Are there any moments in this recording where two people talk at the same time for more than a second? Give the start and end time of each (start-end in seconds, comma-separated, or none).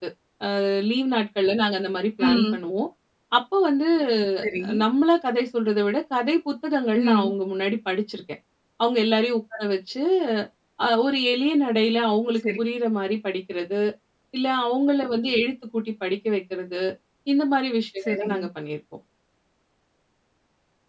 none